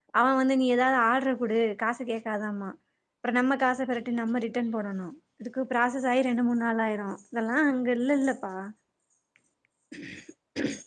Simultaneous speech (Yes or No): No